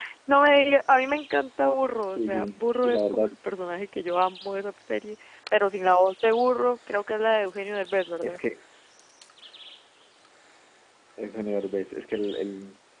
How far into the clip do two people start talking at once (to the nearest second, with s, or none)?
2 s